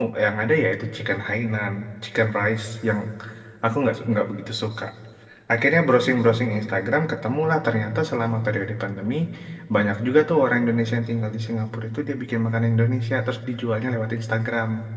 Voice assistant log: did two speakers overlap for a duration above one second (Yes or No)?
No